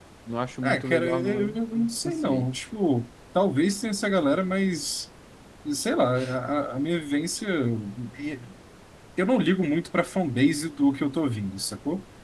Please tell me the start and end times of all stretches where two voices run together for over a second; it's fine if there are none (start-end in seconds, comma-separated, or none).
0.6-2.5